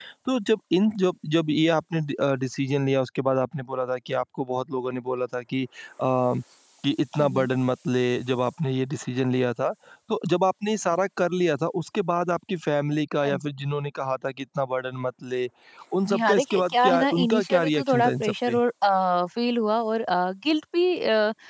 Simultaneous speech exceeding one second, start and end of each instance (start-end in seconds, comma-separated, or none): 16.1-18.6